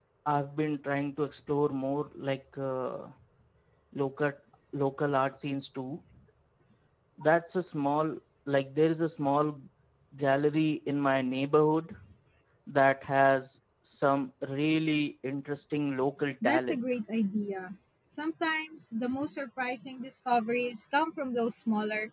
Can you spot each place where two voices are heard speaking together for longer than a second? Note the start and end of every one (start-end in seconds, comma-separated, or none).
none